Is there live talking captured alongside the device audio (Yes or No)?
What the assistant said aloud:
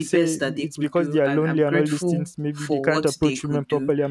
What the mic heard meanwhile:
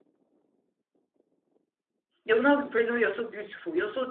Yes